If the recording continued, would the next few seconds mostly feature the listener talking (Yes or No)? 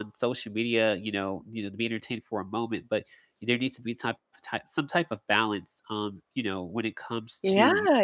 Yes